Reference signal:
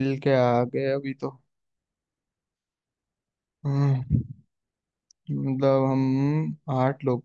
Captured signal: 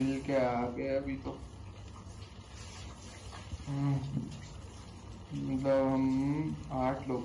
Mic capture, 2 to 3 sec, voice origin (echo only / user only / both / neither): neither